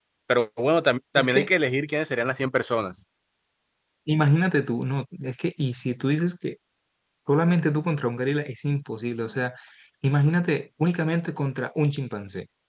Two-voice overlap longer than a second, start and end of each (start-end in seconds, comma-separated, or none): none